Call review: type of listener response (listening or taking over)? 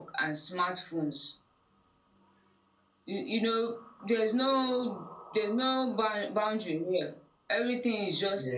listening